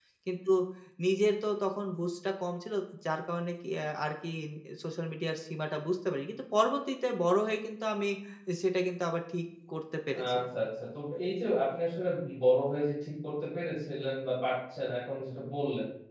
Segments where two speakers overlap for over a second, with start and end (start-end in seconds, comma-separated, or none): none